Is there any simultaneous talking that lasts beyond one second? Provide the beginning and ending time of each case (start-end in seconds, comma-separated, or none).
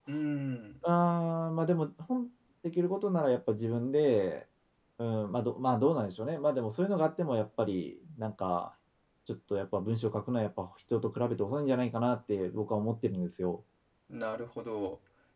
none